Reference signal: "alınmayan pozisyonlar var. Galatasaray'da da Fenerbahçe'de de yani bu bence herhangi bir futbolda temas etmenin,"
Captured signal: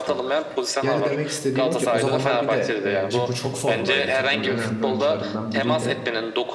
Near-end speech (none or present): present